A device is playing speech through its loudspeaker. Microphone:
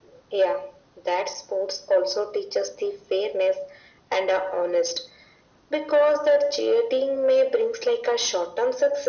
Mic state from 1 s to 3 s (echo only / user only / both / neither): echo only